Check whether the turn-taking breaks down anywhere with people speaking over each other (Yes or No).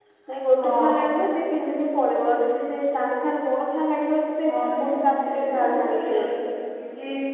Yes